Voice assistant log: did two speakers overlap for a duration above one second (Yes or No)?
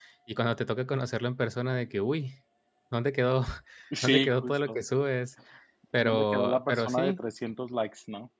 Yes